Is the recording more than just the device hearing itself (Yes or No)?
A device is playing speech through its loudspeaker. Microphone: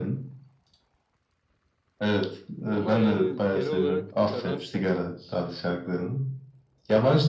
Yes